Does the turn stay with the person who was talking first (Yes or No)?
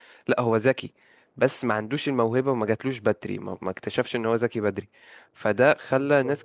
Yes